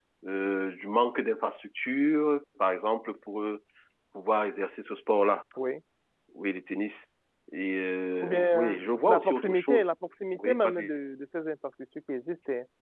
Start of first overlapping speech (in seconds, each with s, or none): 8.2 s